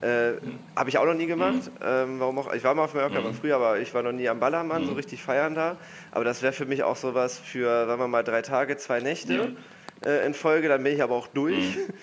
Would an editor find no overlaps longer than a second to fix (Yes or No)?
Yes